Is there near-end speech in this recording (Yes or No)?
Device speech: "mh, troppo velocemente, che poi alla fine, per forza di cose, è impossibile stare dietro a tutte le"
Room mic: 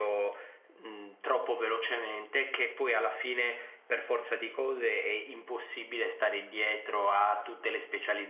No